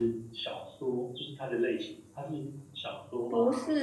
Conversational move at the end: taking over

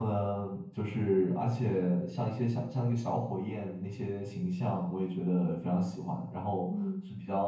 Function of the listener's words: listening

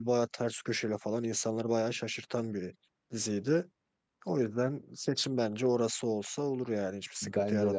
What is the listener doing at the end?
taking over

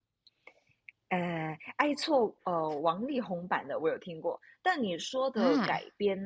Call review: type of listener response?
listening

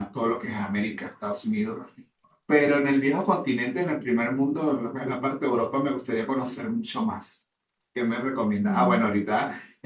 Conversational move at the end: listening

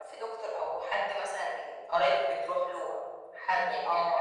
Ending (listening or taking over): taking over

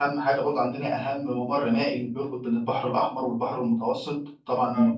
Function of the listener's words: listening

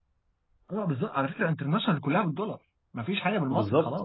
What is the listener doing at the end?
taking over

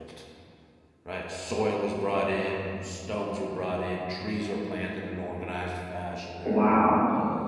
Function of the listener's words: taking over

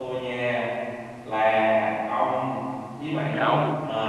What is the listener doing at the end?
taking over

